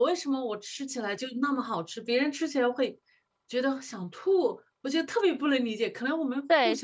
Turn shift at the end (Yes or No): Yes